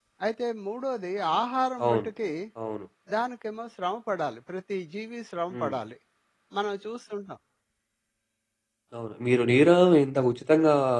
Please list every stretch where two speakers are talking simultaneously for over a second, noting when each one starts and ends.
none

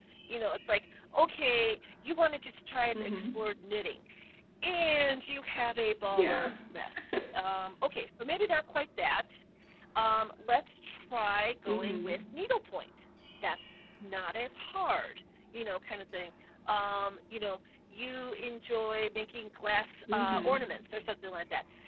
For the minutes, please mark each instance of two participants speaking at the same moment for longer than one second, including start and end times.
none

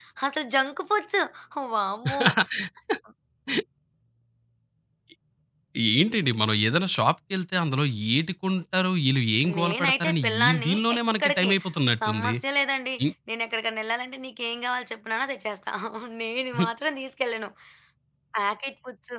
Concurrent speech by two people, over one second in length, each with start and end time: 9.6-11.5

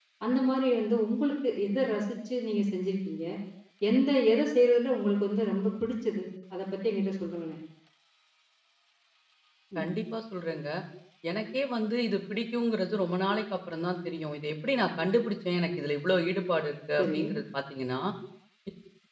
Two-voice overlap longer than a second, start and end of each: none

